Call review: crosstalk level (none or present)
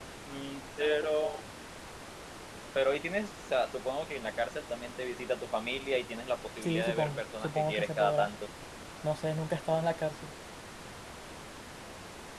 present